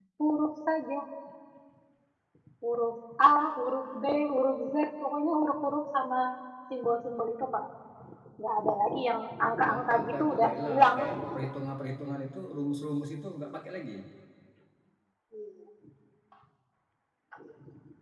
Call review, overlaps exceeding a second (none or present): present